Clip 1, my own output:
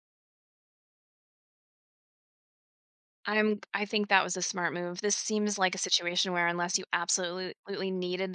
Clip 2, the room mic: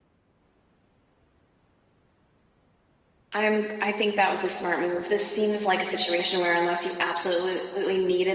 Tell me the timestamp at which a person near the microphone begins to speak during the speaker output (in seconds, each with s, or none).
none